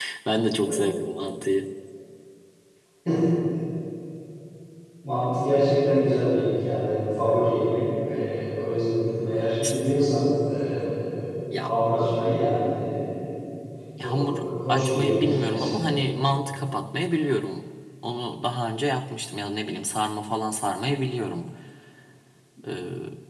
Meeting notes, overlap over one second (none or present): present